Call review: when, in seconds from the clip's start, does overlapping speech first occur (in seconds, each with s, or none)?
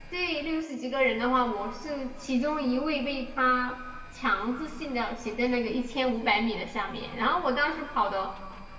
none